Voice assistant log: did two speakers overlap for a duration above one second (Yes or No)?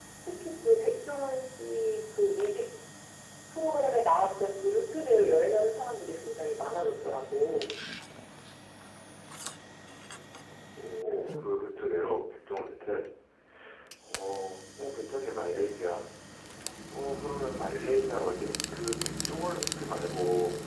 No